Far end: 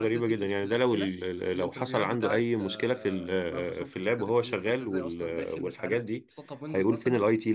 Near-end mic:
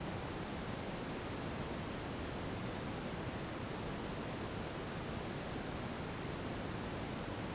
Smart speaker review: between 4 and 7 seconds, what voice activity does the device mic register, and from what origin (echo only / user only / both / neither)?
neither